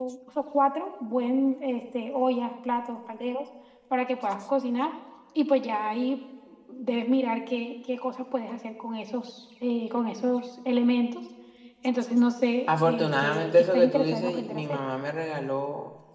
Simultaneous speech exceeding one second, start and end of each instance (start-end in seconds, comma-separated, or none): 12.7-14.8